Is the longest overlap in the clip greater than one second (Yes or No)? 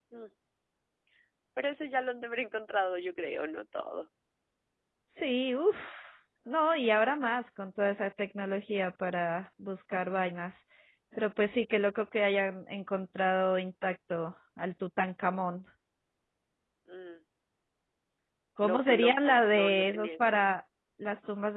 Yes